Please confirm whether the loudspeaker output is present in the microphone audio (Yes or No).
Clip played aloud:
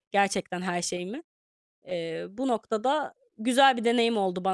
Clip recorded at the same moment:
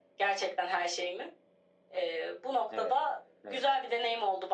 Yes